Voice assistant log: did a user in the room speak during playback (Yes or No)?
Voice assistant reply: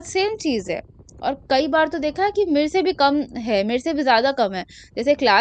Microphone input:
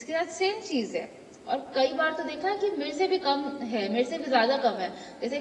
No